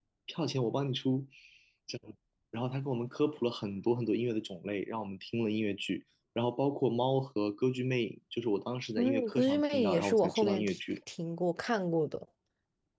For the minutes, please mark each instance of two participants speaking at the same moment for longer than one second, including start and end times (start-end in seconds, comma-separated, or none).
9.0-10.8